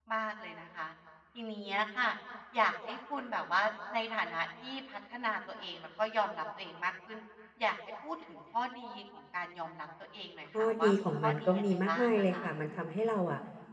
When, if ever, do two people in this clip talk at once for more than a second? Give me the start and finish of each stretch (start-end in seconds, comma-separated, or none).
10.6-12.3